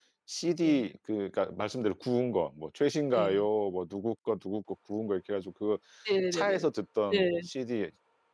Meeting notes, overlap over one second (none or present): none